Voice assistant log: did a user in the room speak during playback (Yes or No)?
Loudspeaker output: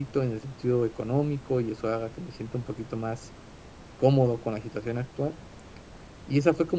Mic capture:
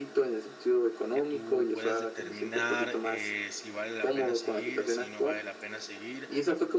Yes